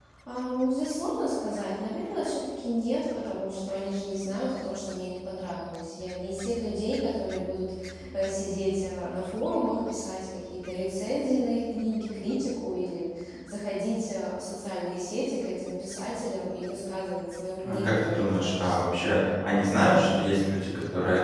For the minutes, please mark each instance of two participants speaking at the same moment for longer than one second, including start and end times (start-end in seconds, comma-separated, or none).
17.6-18.9